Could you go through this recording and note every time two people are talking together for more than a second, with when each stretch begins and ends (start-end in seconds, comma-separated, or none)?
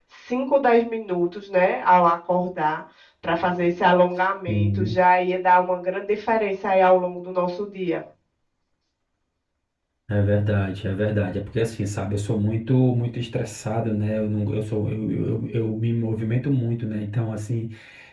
none